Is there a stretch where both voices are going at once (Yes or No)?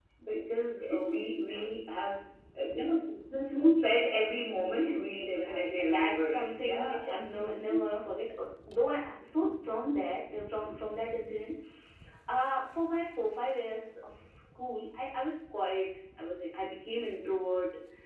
Yes